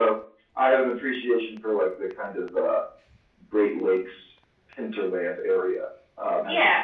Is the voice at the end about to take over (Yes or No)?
No